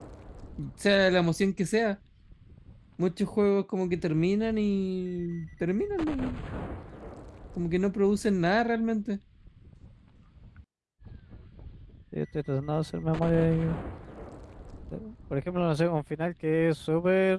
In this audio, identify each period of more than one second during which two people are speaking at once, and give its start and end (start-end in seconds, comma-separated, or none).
none